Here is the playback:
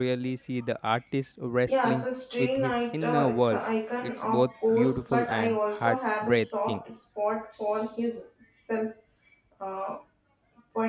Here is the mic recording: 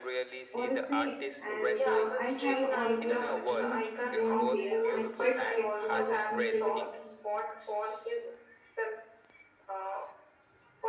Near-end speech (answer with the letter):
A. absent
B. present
B